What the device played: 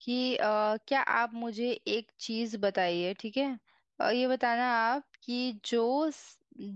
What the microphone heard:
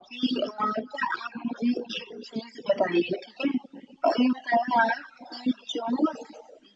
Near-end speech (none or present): none